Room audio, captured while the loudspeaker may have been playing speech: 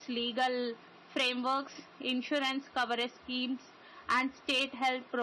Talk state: echo only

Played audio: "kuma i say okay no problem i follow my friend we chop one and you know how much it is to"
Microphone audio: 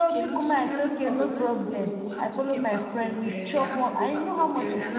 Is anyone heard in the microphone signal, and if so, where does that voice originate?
both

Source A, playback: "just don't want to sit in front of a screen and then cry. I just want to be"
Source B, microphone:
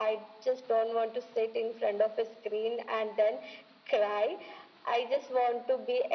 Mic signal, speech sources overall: echo only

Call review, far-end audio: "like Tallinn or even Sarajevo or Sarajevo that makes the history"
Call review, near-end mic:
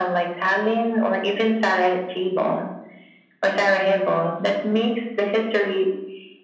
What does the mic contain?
echo only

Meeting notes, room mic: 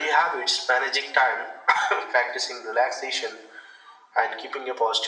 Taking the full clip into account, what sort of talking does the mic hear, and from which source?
echo only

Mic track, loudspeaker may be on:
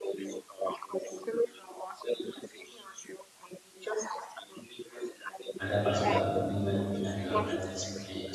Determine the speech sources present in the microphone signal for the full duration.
both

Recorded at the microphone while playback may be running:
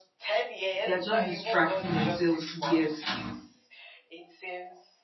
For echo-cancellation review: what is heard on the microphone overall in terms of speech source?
both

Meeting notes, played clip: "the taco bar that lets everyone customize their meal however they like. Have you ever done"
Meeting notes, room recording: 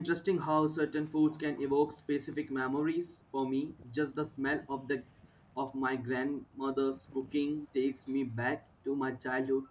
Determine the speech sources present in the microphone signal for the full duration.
user only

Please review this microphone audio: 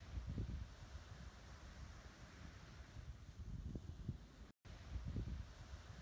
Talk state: neither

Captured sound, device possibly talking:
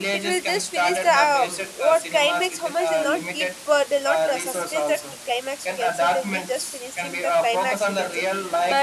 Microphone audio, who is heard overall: both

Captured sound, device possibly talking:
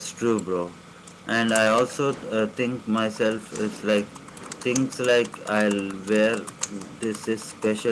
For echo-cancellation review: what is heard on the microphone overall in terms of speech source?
user only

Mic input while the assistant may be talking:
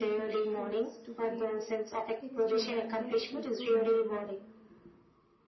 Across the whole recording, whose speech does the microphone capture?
both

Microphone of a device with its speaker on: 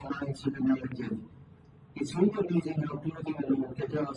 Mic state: echo only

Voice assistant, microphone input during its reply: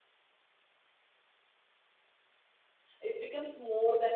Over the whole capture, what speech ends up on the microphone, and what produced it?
user only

